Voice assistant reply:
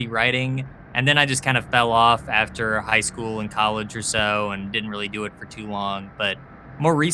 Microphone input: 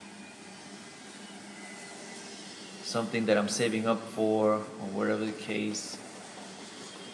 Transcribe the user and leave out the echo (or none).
something that I'm saving up for or whatever the case,